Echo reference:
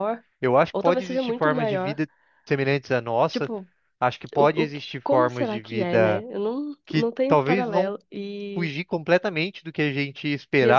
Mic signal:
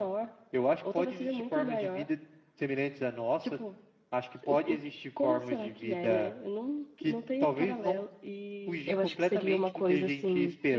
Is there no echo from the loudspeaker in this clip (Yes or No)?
No